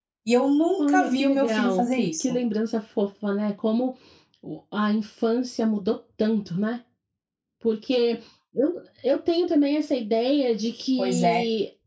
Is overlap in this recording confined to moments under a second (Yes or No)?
No